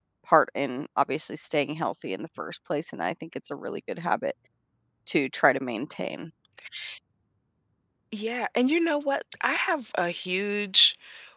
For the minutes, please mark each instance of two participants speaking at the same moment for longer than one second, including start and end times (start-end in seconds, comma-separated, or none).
none